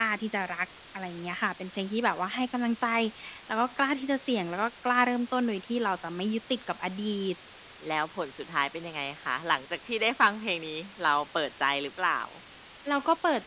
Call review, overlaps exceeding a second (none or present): none